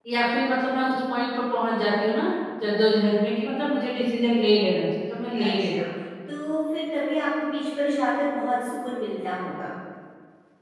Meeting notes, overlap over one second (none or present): none